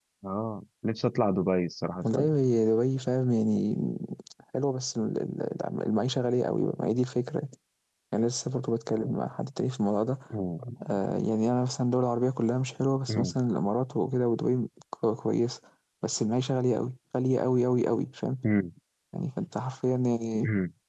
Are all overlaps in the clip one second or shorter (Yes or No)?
Yes